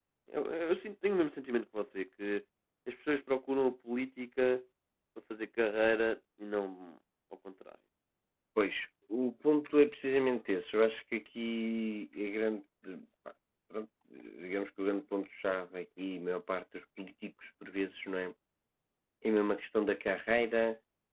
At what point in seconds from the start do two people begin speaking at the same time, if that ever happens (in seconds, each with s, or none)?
none